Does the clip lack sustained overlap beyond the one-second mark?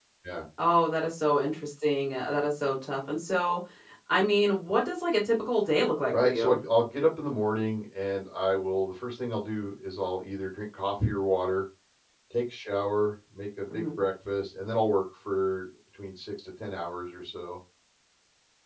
Yes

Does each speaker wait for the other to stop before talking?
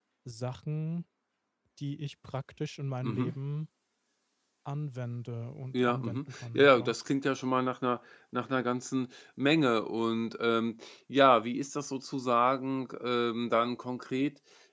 No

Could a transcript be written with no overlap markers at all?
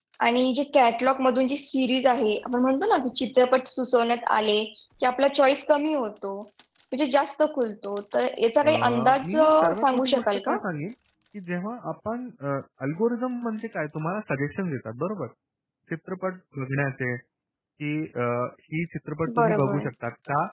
No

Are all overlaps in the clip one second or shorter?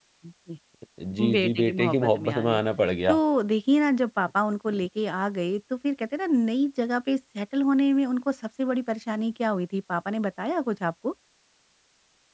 No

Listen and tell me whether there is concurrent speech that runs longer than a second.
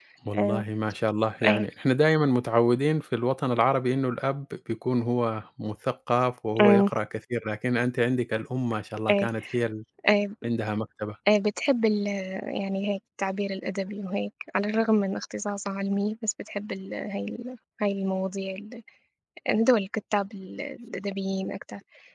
No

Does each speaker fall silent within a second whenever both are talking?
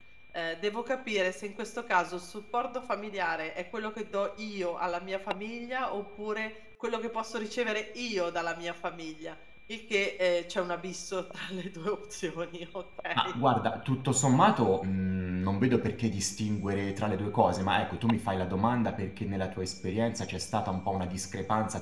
Yes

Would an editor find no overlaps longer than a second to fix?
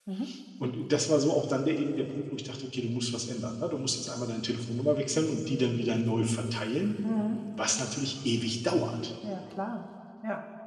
Yes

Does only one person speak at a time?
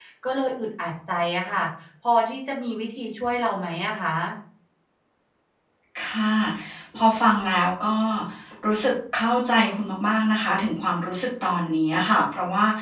Yes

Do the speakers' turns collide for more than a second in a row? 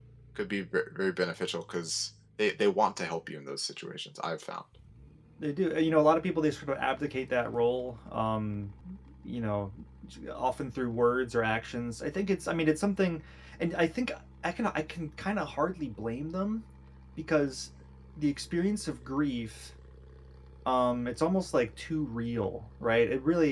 No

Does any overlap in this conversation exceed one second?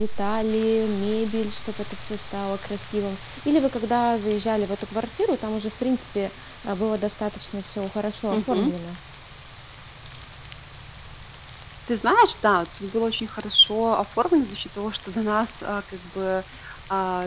No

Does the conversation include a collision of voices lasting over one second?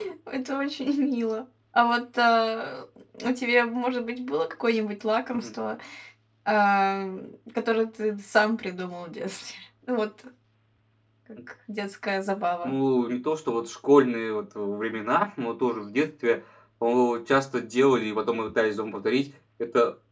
No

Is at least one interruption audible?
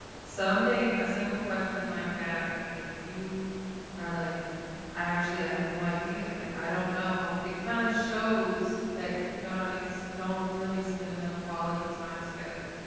No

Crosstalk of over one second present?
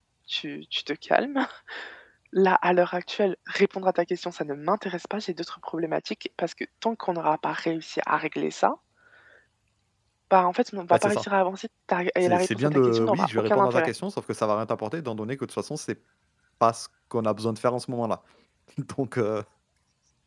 Yes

